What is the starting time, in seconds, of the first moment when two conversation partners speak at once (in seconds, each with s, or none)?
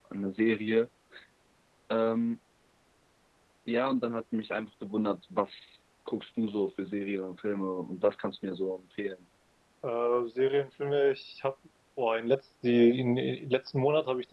none